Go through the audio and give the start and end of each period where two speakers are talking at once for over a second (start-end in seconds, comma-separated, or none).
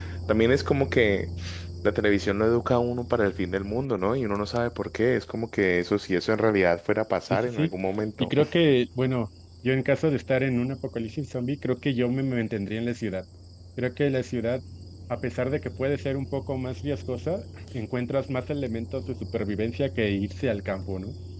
none